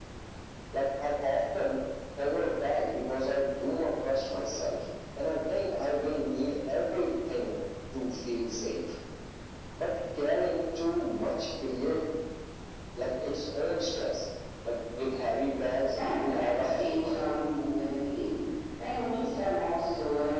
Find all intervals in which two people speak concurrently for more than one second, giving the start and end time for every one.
15.9-17.2

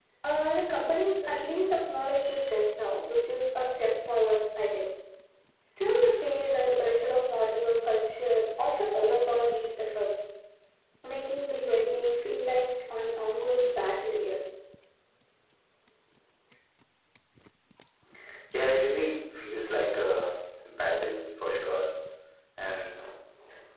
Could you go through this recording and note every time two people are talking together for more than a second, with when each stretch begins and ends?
none

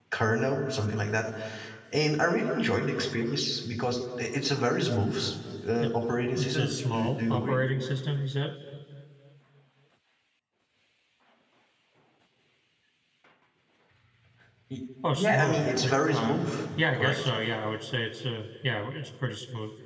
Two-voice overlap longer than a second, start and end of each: 6.4-7.6, 15.1-16.4

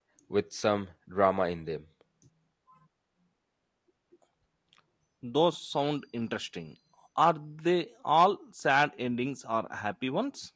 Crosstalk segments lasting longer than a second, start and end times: none

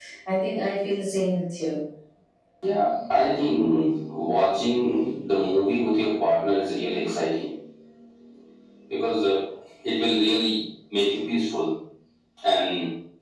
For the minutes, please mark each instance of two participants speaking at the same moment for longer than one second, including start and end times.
none

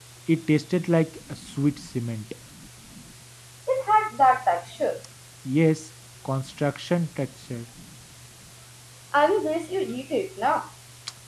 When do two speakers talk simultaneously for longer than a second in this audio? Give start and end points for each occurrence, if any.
none

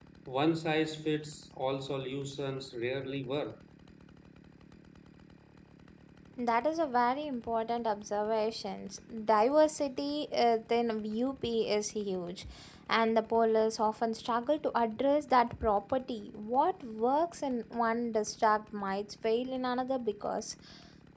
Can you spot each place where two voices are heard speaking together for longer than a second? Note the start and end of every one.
none

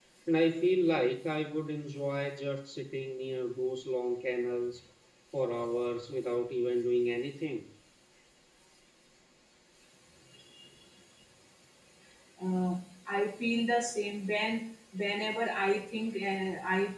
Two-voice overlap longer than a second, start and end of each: none

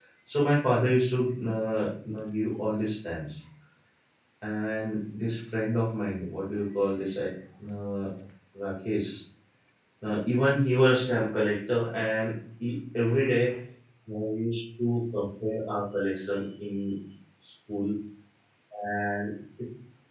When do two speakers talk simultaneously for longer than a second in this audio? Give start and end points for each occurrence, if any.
none

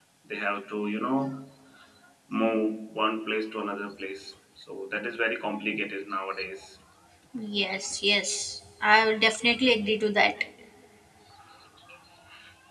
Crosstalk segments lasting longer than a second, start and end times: none

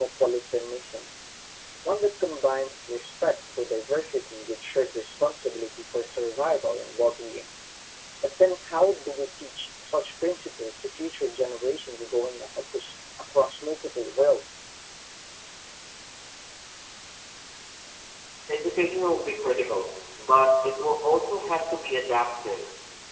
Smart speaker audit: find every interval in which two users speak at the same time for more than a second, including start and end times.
none

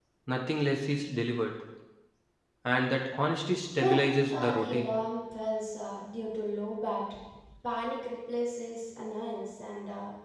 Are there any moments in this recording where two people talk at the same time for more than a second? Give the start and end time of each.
3.7-4.9

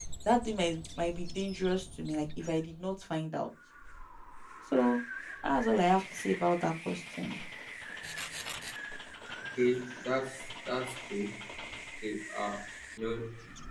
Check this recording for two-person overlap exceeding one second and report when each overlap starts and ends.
none

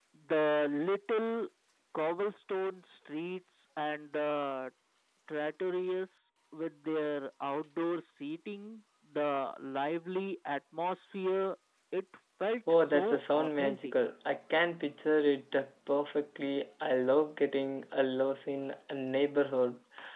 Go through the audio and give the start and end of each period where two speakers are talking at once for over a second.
12.7-13.9

